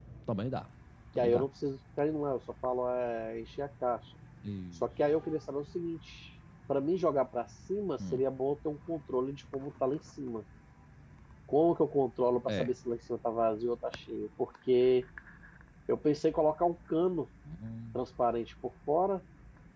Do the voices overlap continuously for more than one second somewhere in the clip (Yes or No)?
No